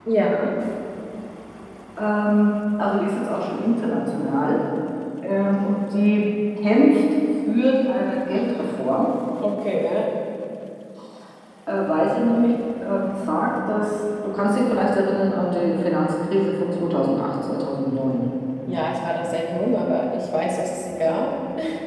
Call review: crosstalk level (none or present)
none